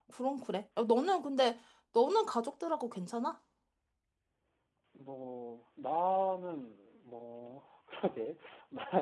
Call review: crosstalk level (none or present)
none